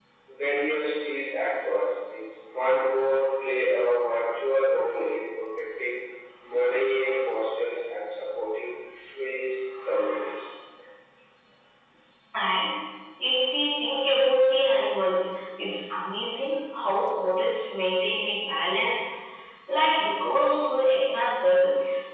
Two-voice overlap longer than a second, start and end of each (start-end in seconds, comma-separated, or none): none